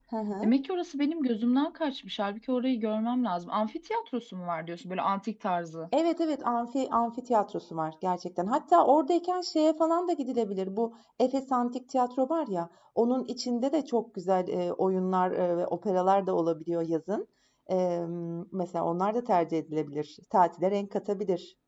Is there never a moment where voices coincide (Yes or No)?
Yes